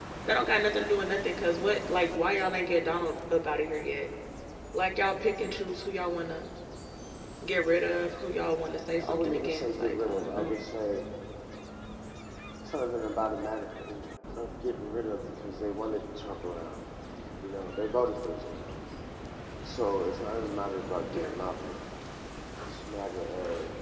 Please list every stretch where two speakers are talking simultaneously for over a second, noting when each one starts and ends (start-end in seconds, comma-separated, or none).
9.1-10.6